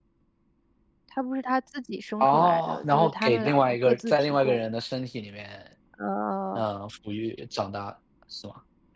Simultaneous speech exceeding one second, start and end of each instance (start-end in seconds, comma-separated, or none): 2.2-4.6